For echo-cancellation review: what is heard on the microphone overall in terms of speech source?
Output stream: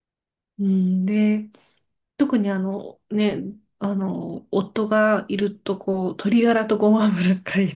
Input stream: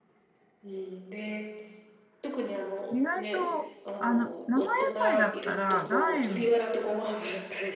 both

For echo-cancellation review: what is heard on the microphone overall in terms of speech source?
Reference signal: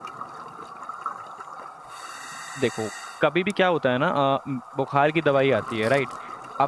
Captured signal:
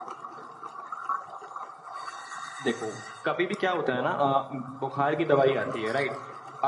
echo only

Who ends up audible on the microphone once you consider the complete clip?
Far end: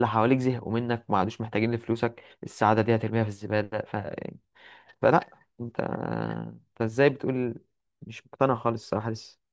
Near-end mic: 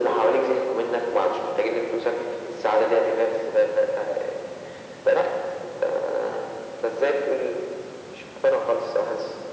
echo only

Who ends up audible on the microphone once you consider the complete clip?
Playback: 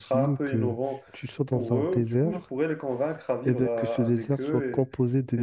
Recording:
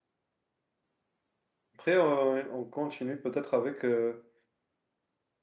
user only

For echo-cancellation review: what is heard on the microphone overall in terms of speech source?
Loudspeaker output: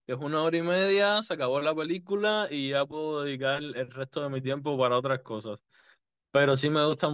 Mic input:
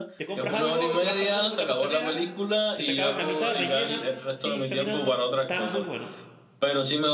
both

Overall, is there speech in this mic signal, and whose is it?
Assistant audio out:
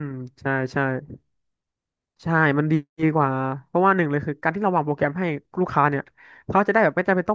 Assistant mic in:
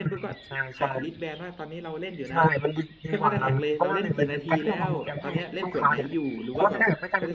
both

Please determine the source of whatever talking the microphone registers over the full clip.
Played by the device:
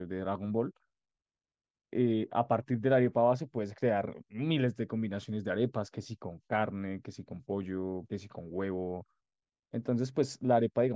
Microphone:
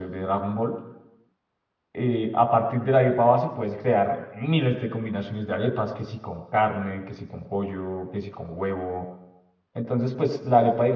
echo only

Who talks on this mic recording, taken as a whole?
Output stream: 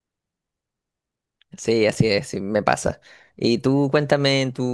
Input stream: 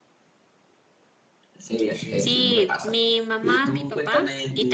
both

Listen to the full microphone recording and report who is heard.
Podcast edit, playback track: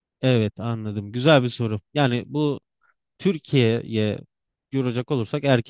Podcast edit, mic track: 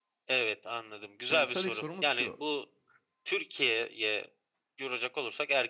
both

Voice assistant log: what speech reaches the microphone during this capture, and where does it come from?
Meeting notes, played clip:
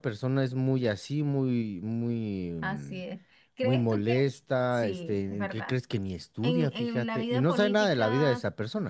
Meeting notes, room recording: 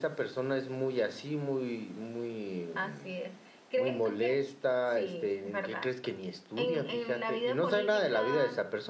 echo only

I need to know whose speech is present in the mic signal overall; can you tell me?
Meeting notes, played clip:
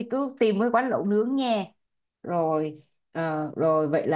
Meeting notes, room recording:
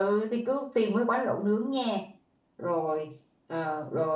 echo only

